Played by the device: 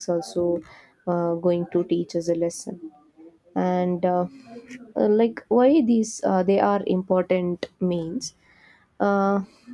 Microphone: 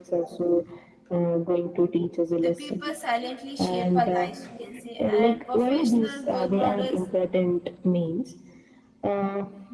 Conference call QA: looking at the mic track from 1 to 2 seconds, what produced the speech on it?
echo only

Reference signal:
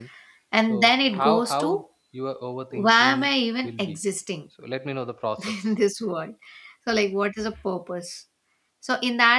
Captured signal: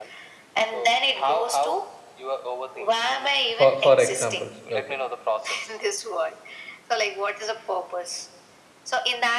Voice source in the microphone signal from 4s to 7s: both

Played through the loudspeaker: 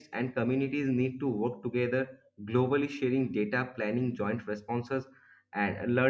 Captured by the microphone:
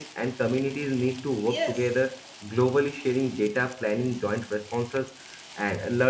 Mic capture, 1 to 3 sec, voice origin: both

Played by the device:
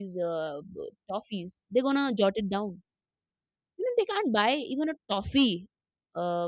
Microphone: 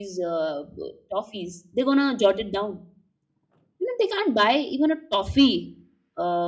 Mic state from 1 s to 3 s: echo only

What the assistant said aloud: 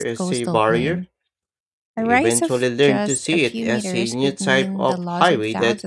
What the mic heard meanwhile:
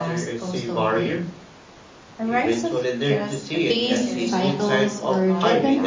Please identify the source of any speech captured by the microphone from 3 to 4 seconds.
both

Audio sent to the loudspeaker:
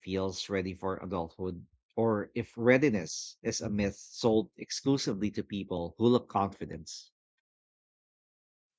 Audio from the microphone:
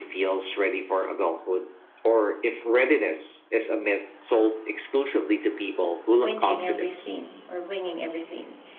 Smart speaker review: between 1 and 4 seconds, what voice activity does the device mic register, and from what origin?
echo only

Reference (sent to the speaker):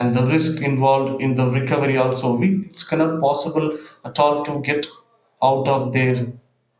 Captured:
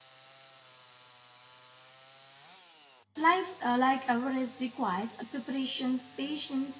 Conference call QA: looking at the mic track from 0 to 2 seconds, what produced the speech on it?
neither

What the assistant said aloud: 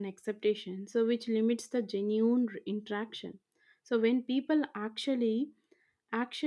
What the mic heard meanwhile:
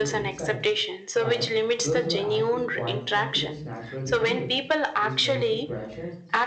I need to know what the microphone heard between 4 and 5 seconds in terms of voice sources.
both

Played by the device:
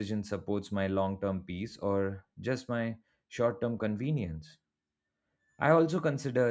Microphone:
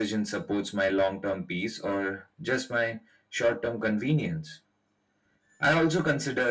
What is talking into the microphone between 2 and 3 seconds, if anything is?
echo only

